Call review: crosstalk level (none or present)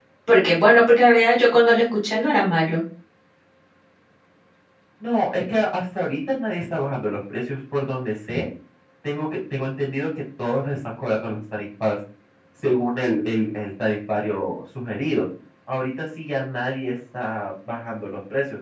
none